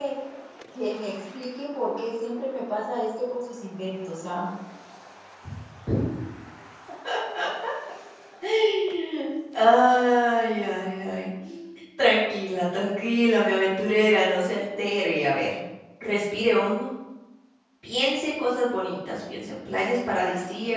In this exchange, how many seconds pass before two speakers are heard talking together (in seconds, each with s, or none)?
none